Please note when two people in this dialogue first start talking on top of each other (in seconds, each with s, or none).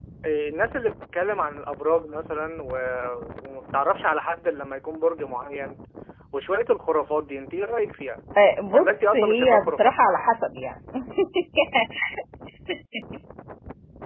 8.7 s